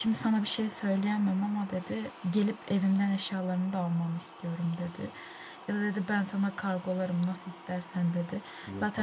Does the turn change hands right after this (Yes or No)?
No